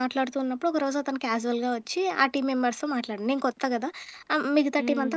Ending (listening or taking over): listening